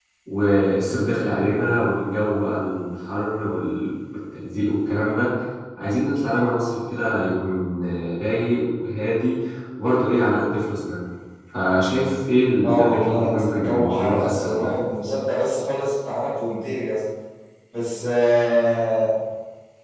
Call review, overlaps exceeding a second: present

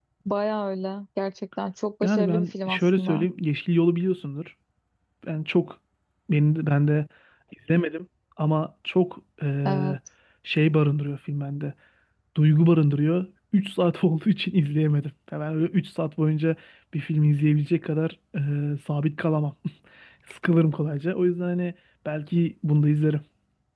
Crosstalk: present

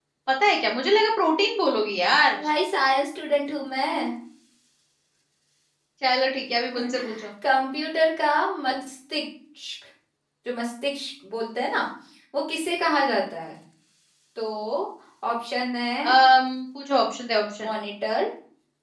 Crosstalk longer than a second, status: none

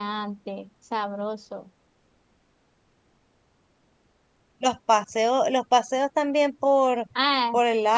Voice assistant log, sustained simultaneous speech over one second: none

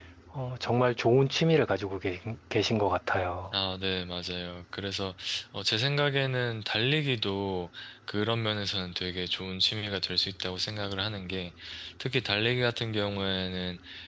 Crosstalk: none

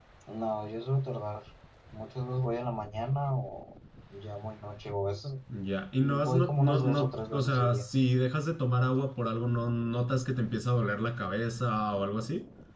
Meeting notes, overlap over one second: present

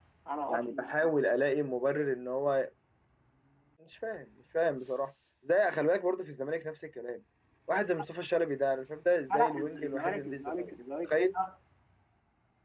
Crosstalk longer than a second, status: present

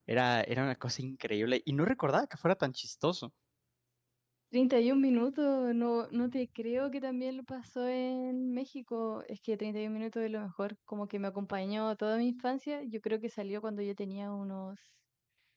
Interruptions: none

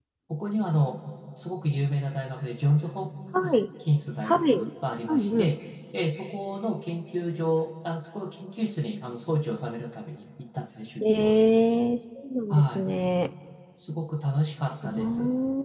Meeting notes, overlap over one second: none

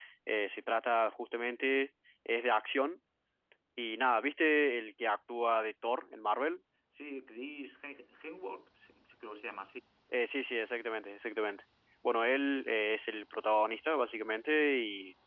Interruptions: none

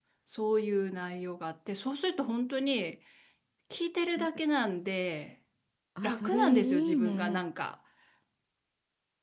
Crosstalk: present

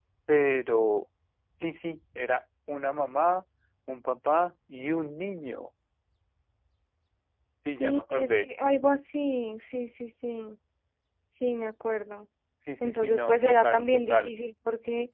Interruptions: present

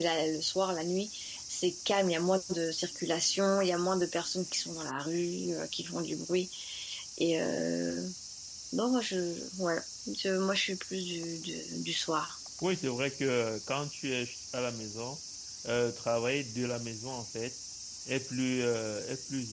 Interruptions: none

